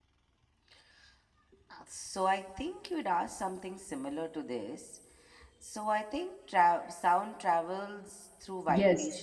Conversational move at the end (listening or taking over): taking over